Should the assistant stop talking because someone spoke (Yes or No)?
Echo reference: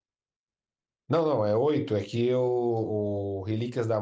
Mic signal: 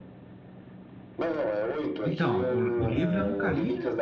Yes